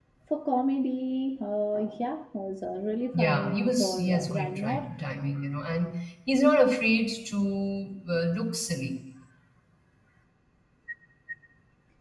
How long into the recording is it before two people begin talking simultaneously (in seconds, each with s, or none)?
3.1 s